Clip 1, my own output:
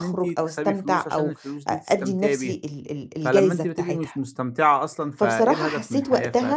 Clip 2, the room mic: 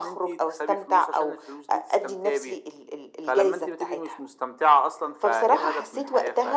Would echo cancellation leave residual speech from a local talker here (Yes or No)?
No